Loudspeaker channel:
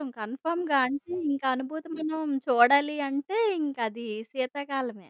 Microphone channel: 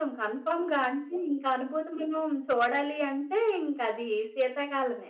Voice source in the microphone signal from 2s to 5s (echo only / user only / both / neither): echo only